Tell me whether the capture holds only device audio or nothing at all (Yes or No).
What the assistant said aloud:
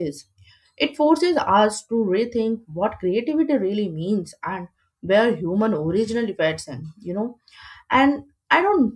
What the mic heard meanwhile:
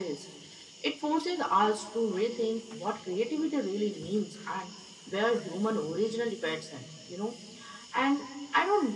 Yes